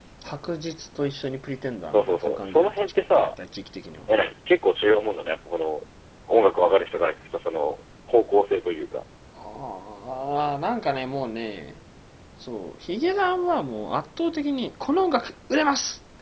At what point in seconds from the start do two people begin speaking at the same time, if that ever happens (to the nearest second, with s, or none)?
2 s